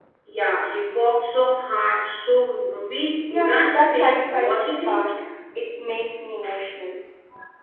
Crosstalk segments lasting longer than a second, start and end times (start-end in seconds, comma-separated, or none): 3.3-5.1